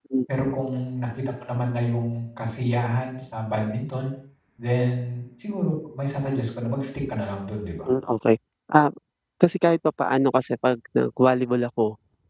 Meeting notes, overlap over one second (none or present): none